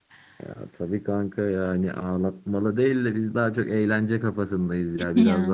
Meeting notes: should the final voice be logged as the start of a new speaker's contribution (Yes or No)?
No